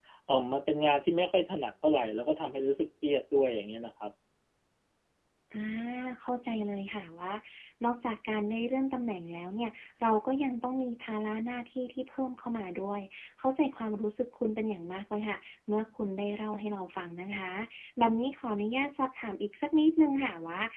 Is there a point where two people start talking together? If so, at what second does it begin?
none

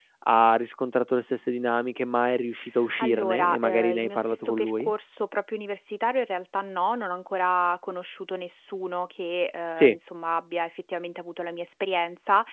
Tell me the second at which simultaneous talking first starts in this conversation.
3.0 s

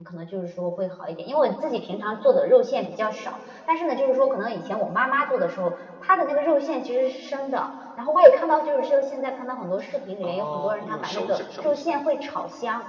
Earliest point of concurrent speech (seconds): 10.2 s

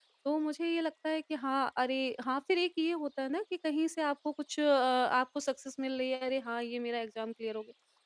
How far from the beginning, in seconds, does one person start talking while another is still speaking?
none

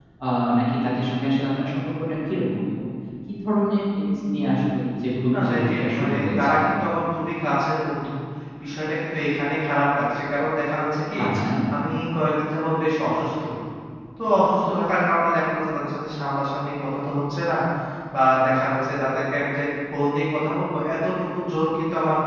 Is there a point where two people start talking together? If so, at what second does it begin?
5.3 s

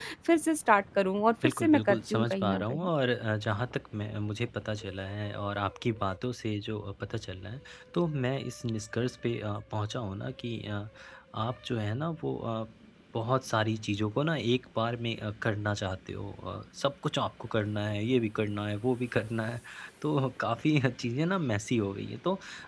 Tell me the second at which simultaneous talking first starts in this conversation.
1.4 s

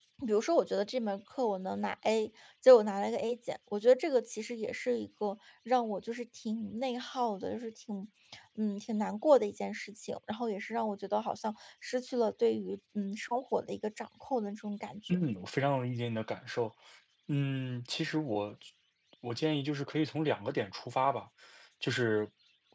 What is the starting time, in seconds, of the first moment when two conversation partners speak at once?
none

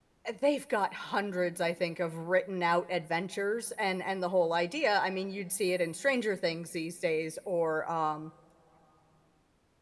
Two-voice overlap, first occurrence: none

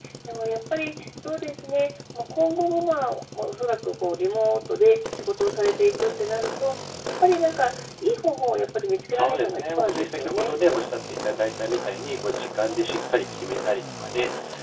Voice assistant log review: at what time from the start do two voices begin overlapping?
9.1 s

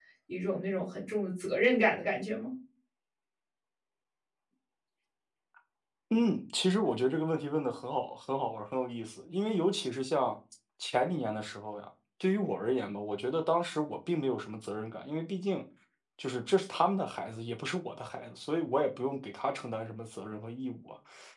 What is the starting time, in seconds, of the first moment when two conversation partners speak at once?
none

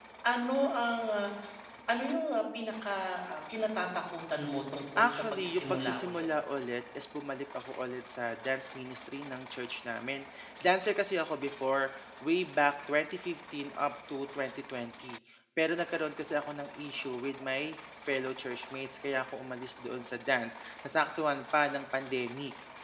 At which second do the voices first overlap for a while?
5.0 s

